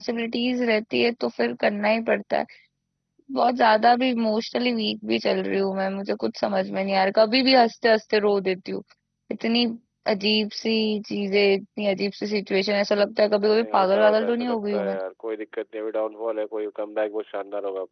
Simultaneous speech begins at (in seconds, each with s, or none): 13.4 s